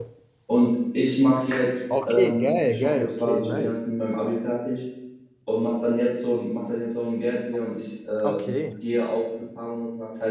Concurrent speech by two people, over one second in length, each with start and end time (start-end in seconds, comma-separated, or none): 2.0-3.8